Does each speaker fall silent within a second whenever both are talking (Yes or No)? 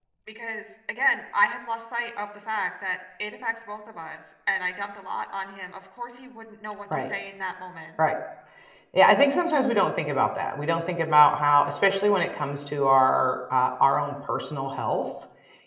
Yes